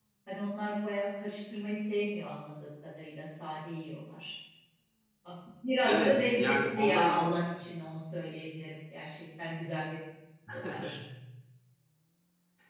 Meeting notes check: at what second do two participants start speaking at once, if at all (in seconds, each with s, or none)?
5.8 s